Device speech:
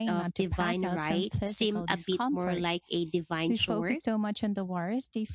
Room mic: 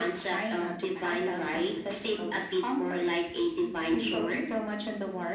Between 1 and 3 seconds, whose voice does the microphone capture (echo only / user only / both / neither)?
echo only